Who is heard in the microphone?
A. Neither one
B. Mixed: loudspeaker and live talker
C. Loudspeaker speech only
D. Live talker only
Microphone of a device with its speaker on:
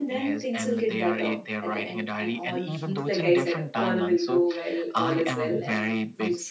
B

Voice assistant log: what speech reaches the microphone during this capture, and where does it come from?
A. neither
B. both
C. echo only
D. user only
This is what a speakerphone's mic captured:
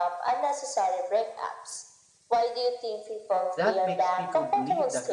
B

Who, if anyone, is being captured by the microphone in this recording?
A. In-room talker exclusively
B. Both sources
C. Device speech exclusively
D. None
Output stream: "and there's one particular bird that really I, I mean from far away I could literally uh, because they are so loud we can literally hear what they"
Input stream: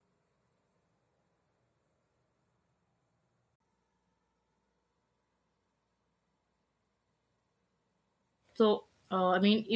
A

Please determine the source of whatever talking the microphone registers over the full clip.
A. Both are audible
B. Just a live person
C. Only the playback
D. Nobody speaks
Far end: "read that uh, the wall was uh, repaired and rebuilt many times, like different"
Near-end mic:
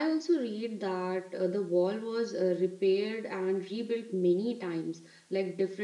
C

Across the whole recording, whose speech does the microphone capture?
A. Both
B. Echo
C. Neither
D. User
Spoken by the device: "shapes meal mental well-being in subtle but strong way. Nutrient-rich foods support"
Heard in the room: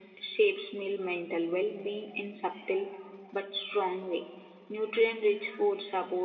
B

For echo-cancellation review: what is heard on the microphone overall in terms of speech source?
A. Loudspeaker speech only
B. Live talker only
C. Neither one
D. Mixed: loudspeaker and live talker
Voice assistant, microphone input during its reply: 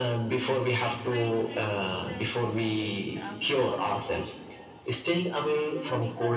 D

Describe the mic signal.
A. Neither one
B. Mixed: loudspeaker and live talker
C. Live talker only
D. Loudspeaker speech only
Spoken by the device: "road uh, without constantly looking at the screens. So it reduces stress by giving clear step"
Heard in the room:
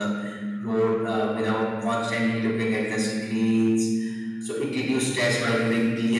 D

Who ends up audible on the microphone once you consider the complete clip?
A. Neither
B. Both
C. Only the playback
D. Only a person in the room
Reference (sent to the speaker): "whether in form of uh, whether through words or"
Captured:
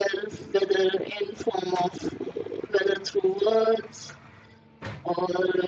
C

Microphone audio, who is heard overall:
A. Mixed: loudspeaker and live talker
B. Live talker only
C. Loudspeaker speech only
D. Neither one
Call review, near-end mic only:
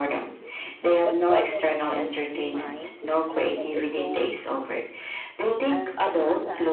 A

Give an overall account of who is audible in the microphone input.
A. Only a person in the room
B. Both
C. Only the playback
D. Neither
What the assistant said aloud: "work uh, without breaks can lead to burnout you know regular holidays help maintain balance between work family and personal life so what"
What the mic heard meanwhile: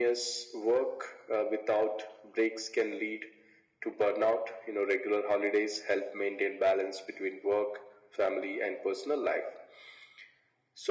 C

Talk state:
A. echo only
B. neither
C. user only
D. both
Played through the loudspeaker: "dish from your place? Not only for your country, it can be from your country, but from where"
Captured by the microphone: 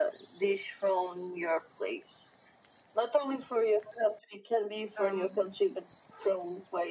D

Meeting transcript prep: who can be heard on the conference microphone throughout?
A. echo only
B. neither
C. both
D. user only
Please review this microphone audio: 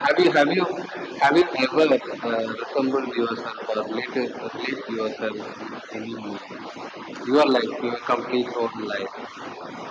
A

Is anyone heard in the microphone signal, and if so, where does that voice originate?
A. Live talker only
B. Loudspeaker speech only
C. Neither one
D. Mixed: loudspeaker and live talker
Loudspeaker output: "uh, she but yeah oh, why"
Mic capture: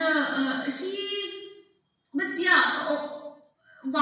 B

